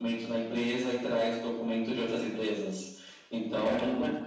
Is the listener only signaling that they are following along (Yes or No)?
Yes